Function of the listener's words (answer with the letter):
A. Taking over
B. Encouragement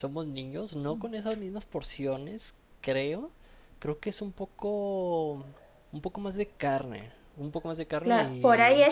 A